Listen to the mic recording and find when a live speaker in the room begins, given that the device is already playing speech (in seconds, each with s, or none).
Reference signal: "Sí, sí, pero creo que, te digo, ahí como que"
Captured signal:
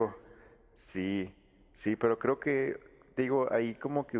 none